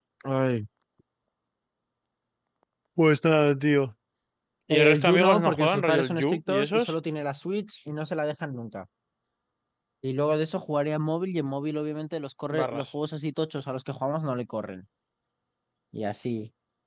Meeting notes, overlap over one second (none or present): present